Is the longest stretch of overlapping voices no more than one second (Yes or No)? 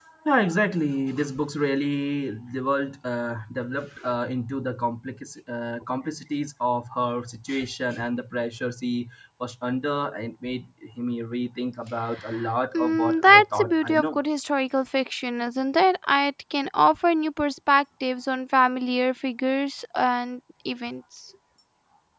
No